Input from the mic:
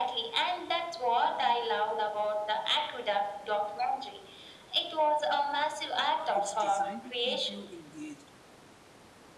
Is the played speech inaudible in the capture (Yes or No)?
No